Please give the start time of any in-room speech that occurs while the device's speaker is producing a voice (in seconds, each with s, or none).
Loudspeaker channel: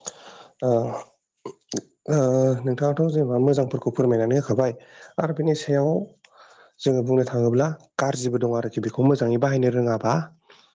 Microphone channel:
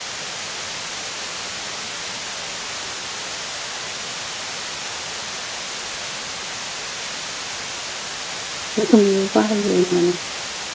8.8 s